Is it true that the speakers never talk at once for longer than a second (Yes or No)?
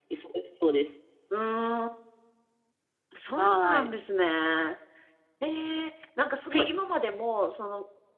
Yes